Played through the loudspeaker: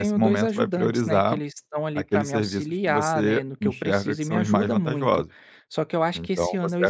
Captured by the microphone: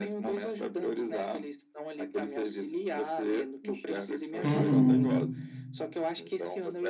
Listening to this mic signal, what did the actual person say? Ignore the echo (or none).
uhum,